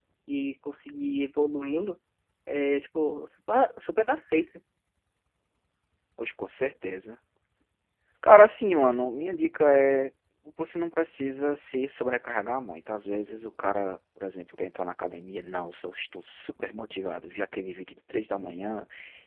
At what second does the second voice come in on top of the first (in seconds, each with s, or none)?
none